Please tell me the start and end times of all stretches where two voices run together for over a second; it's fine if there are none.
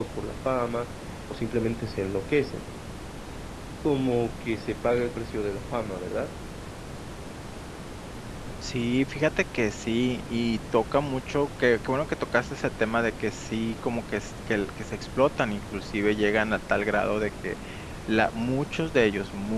none

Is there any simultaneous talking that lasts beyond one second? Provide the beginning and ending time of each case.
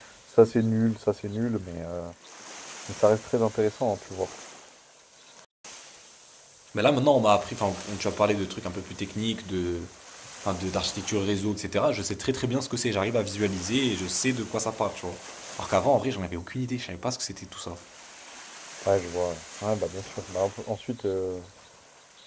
none

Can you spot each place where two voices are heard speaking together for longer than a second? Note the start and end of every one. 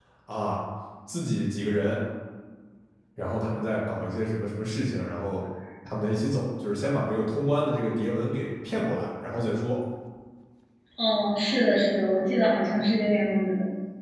none

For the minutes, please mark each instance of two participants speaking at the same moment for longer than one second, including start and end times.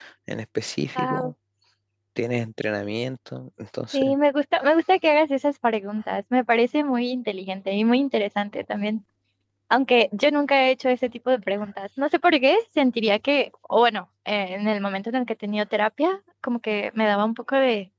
none

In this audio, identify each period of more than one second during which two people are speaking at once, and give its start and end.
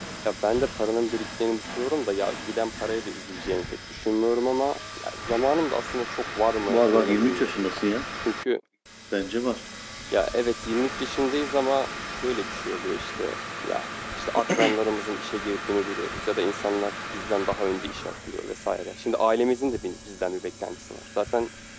6.7-7.9

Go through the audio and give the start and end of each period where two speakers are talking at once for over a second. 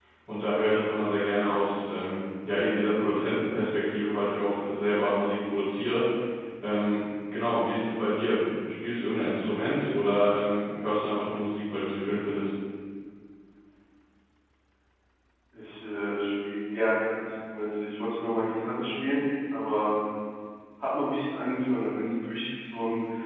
none

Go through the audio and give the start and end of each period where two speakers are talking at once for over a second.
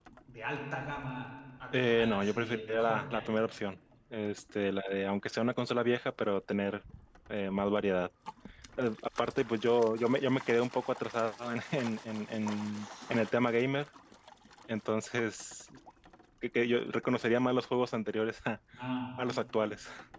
1.9-3.3

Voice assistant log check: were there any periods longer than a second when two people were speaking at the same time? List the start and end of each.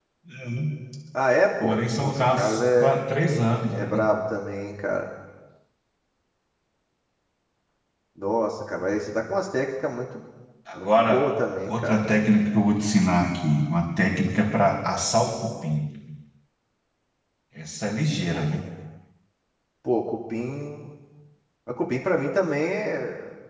1.6-3.0

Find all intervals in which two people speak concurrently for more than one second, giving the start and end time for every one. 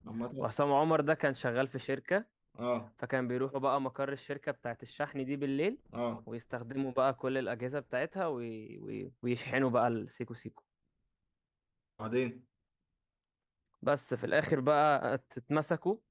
none

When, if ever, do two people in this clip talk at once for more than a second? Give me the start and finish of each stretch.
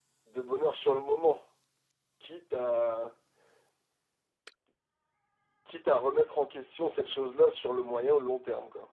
none

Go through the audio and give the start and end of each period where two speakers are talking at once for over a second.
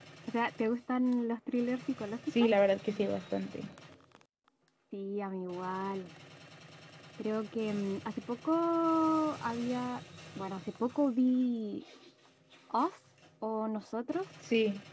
none

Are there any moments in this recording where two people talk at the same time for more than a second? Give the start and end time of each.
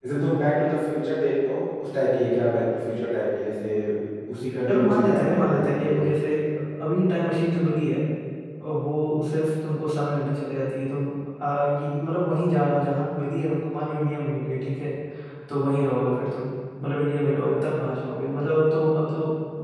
4.7-6.0

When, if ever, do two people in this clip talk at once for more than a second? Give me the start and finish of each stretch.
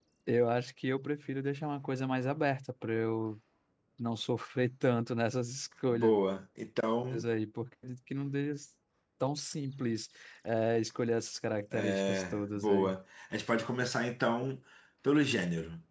11.7-13.0

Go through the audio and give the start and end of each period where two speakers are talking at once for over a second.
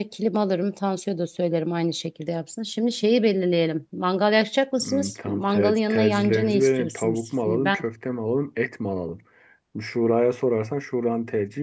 4.8-7.8

